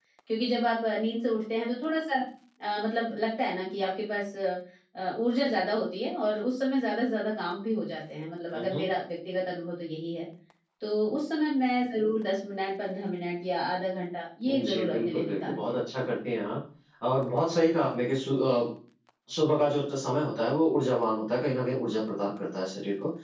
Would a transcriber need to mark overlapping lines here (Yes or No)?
Yes